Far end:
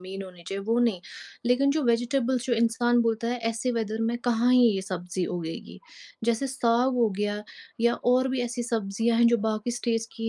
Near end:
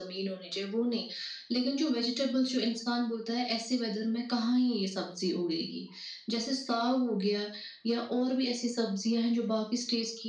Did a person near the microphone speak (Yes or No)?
No